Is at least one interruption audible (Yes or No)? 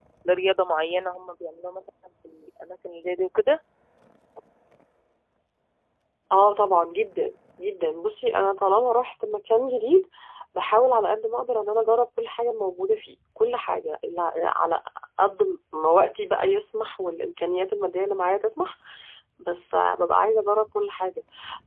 No